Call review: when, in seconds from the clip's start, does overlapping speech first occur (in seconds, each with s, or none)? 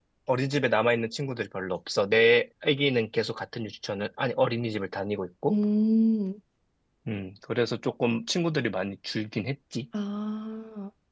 none